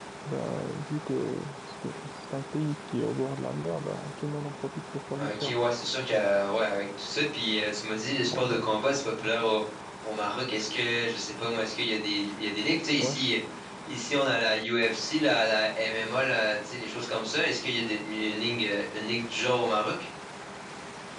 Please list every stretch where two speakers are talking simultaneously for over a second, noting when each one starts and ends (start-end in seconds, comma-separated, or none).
none